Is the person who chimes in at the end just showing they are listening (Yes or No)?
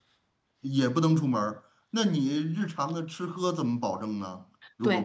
No